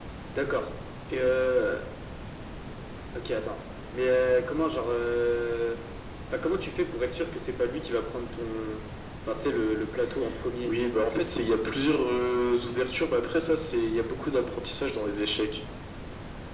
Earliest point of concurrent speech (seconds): none

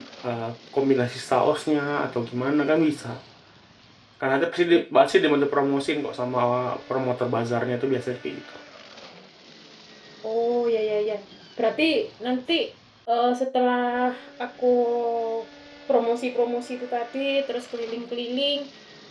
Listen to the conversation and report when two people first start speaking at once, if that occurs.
none

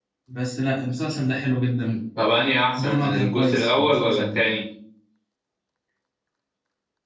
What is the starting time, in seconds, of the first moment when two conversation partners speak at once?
2.8 s

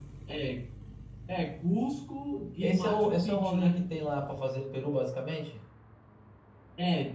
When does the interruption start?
2.6 s

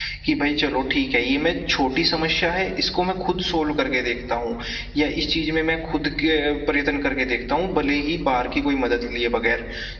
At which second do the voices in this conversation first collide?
none

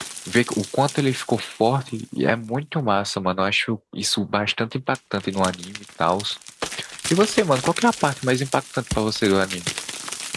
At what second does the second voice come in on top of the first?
none

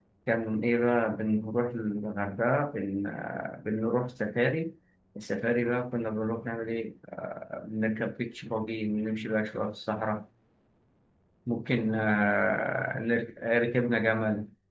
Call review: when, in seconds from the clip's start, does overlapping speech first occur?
none

